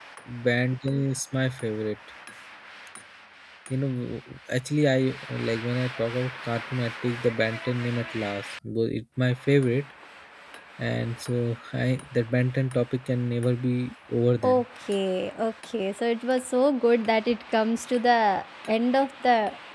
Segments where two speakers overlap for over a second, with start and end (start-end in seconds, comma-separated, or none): none